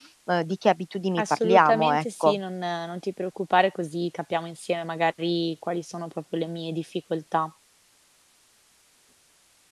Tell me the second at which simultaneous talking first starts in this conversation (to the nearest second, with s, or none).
1 s